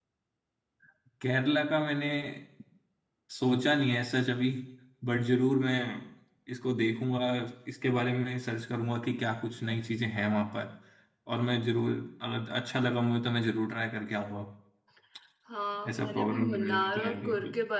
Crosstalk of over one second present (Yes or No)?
Yes